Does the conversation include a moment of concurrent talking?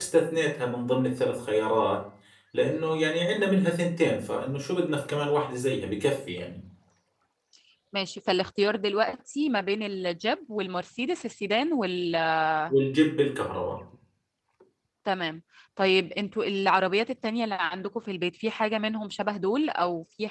No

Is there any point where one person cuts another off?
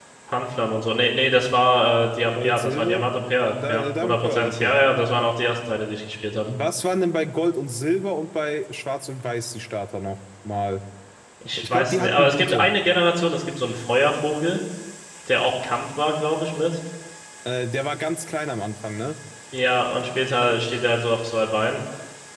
Yes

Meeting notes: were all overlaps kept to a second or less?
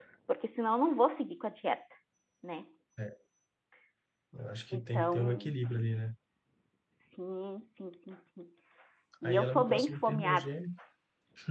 No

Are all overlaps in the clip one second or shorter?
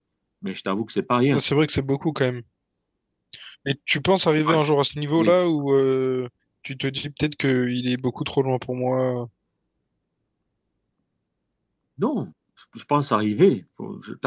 Yes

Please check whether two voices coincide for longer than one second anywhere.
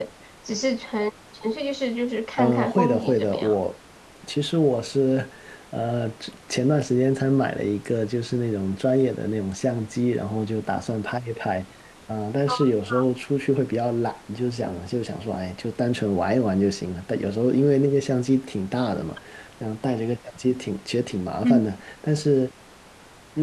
Yes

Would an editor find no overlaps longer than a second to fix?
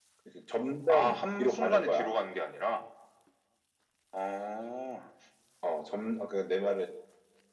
No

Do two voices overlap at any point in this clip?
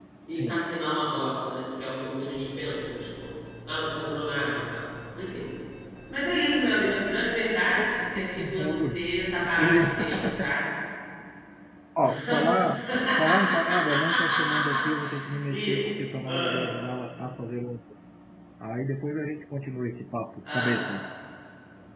Yes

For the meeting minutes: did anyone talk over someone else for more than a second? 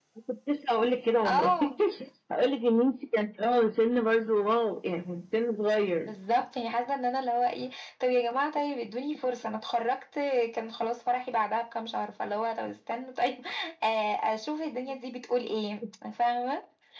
No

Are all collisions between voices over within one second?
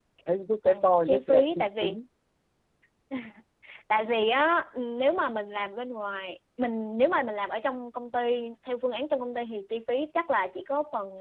No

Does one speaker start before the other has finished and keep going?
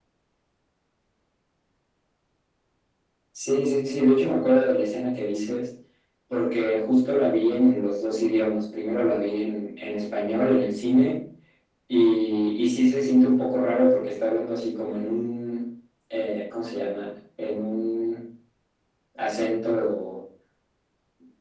No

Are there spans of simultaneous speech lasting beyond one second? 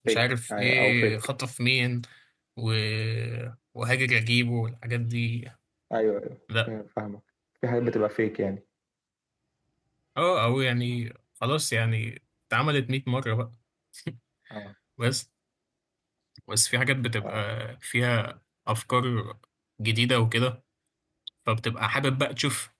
Yes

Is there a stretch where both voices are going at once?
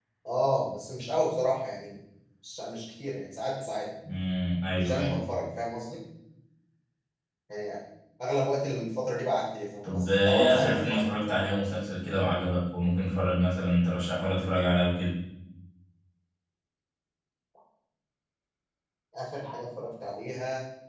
Yes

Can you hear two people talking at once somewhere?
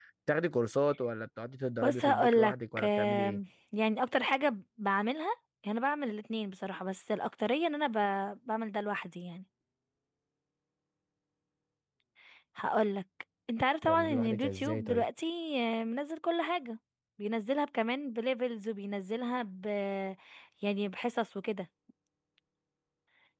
Yes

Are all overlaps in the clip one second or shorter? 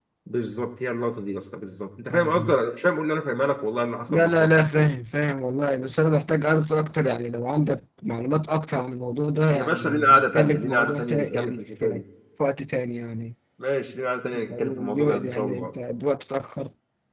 No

